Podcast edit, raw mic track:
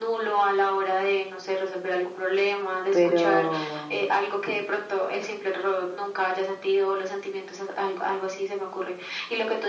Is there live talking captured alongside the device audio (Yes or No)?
Yes